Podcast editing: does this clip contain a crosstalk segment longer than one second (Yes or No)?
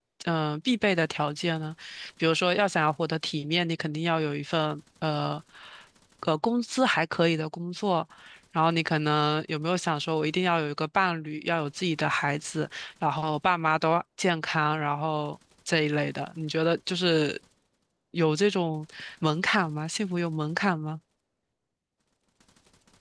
No